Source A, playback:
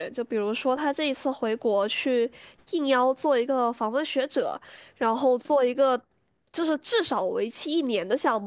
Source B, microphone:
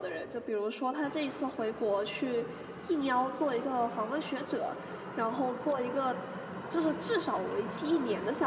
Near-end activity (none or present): none